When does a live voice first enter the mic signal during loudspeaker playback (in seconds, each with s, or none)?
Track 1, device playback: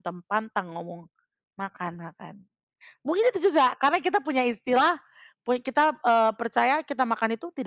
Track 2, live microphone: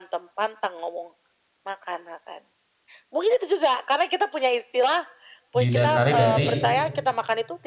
5.5 s